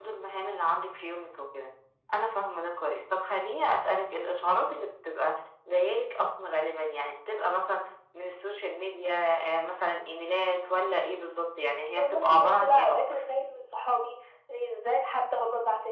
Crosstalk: present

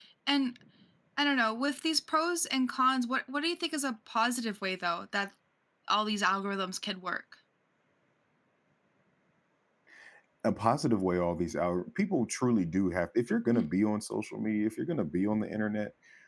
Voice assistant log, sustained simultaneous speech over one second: none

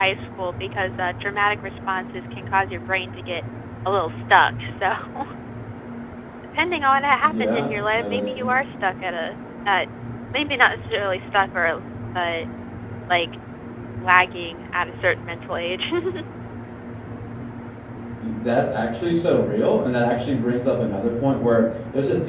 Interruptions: present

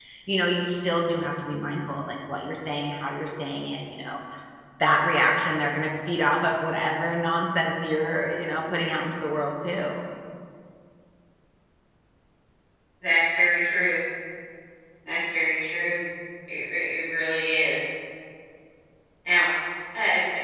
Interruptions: none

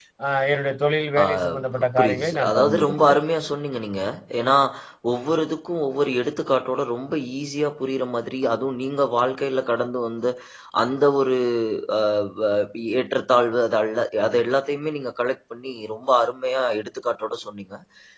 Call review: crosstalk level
present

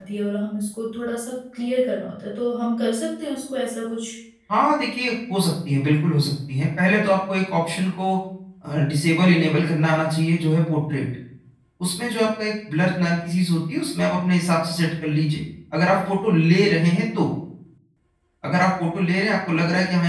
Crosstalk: none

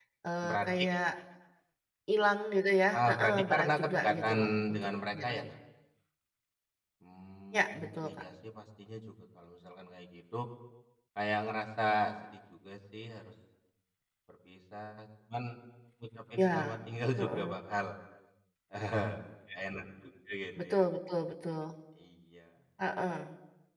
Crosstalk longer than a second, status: present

